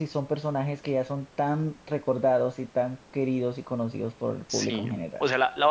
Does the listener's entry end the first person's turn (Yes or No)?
Yes